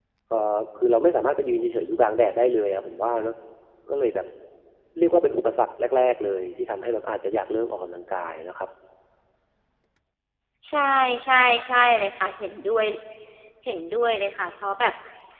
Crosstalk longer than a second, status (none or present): none